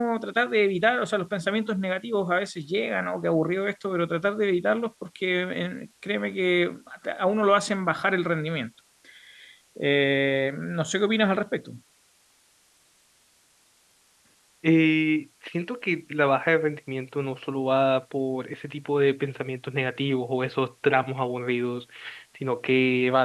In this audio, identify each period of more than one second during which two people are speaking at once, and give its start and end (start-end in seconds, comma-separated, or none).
none